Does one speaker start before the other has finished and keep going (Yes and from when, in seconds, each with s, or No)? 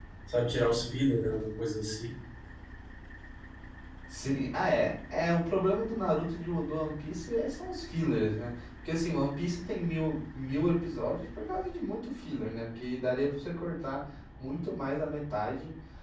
No